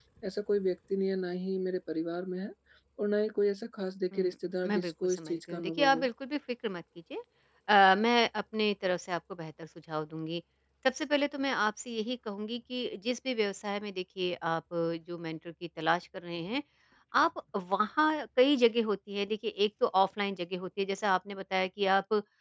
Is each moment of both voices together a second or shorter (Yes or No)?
No